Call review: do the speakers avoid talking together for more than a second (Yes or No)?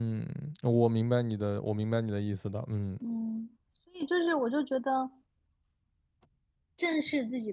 Yes